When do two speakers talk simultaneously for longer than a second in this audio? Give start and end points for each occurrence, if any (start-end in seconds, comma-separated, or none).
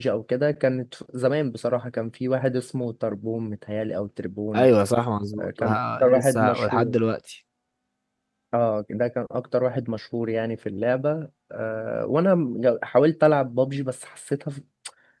5.4-7.0